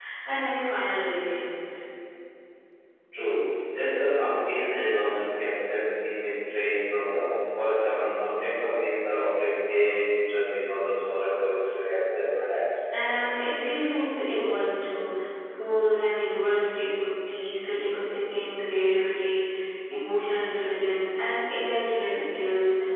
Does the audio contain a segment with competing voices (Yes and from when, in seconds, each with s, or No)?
No